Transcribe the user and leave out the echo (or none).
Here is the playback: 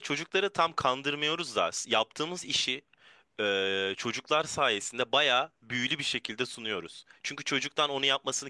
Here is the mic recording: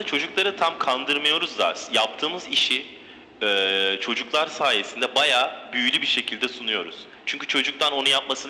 none